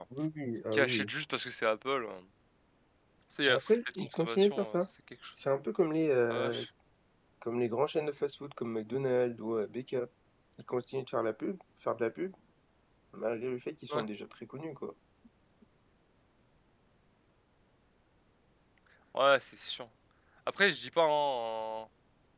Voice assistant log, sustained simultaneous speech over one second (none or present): present